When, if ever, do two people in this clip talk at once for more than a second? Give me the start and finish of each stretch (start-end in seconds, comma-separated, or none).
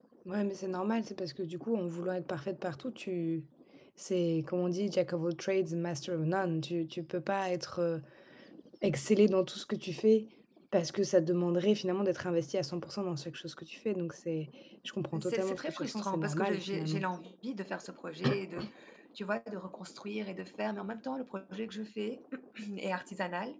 15.2-17.0